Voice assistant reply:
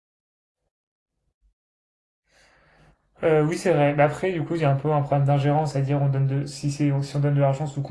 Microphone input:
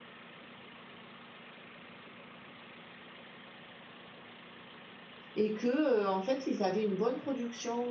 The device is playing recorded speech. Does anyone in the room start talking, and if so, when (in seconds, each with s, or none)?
5.4 s